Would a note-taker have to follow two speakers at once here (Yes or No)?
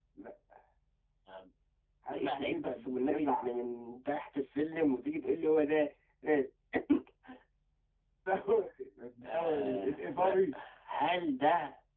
Yes